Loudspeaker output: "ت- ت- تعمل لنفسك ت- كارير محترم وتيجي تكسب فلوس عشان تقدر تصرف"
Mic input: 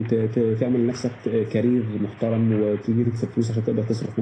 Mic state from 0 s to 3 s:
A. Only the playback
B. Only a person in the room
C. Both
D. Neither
A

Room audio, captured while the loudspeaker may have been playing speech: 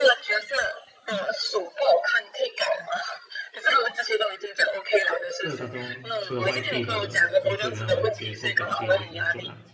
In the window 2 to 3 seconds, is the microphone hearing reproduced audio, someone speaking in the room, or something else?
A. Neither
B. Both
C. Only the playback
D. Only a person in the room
C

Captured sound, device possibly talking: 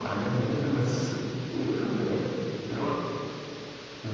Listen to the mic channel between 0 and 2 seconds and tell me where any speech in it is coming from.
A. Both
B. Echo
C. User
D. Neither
B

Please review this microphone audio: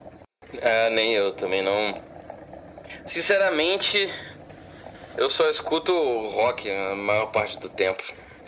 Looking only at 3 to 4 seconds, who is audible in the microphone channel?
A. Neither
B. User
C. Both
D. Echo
D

